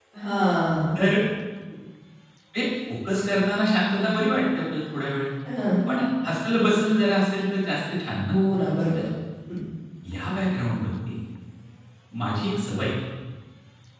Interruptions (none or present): none